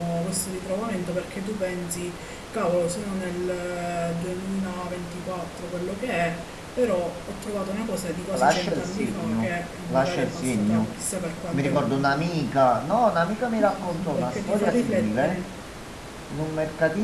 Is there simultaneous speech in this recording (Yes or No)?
Yes